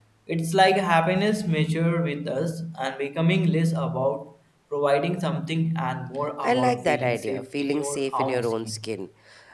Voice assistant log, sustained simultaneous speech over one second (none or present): present